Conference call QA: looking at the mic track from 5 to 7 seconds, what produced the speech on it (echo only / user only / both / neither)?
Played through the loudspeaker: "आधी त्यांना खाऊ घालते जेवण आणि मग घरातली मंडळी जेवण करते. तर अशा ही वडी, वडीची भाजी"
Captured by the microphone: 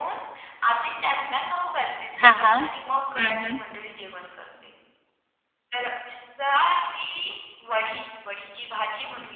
echo only